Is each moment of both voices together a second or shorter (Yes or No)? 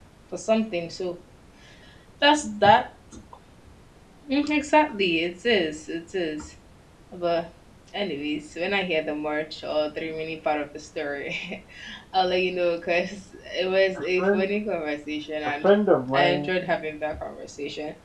Yes